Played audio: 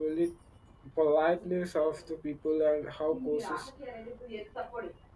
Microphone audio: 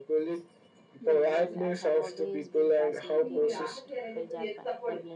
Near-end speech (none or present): present